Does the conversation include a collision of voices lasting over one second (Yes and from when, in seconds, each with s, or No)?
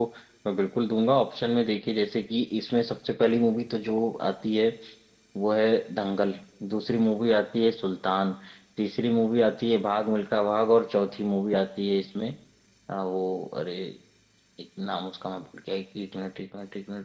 No